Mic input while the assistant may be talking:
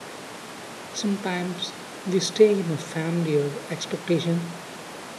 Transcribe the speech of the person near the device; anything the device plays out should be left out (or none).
Sometimes we stay in a family or expectation